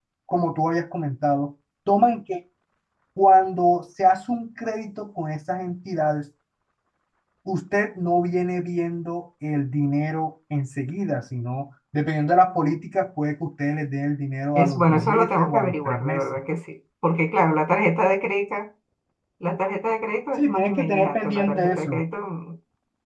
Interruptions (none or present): present